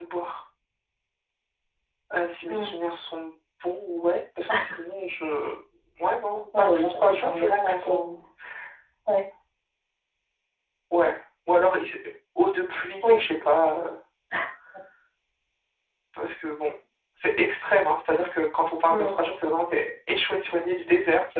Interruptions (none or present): present